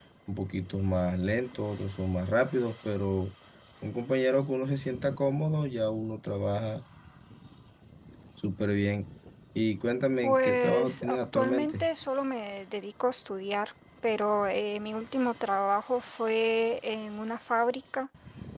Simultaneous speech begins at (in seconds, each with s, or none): 10.2 s